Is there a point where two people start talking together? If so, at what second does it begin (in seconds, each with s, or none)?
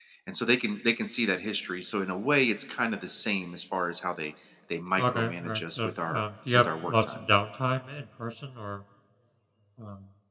5.0 s